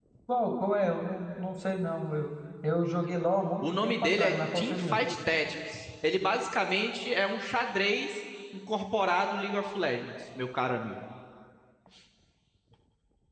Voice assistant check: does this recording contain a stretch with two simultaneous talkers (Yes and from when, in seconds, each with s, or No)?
Yes, from 3.6 s